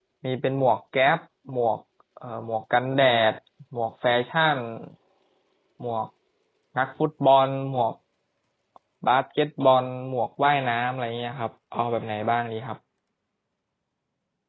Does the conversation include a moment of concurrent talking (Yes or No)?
No